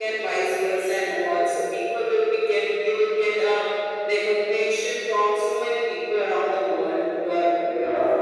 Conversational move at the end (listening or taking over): taking over